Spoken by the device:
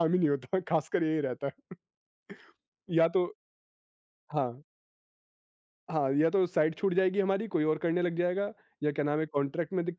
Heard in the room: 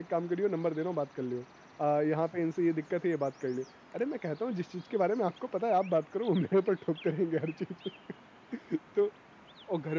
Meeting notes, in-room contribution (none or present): present